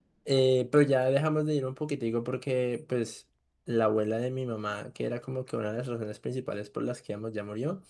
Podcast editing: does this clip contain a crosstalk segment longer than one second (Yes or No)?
No